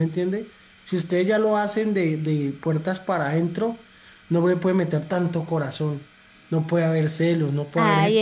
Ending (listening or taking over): taking over